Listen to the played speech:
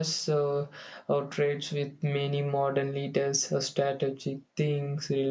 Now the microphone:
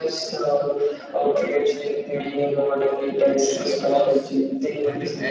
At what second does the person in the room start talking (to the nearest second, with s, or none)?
3 s